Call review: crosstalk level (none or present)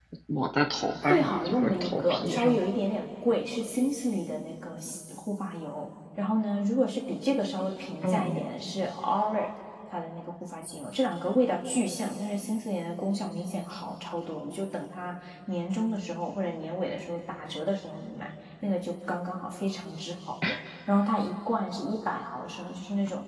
present